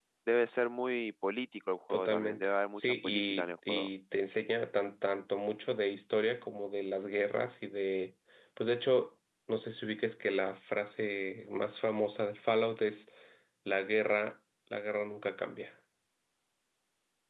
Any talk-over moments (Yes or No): Yes